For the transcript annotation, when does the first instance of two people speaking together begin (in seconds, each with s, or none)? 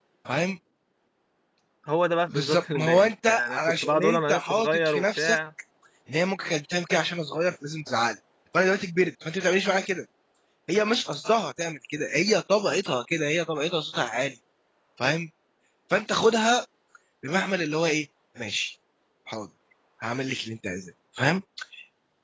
2.3 s